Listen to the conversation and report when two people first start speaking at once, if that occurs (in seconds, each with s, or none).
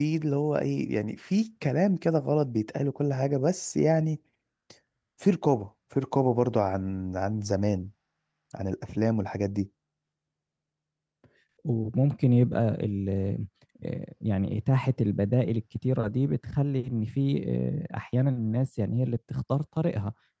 none